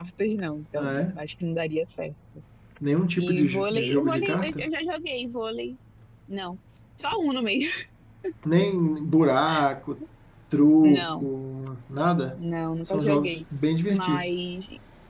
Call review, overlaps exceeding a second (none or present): present